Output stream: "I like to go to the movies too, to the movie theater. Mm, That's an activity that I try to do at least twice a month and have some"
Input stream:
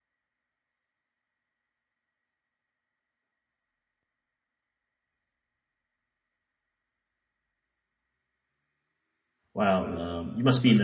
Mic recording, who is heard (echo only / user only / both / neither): user only